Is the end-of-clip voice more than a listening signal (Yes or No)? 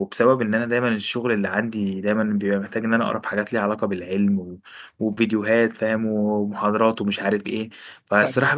No